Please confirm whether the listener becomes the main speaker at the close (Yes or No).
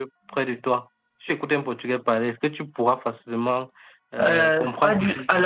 Yes